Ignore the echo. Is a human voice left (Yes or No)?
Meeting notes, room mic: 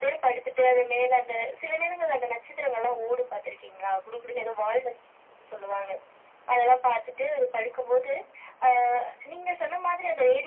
No